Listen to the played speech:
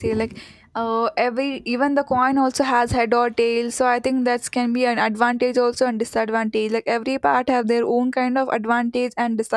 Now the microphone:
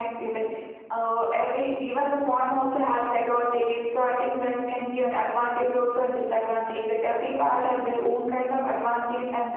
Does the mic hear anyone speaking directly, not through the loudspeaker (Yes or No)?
No